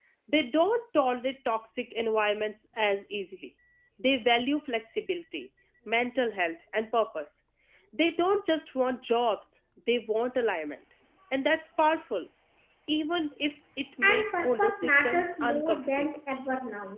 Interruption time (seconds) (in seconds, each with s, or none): 14.0 s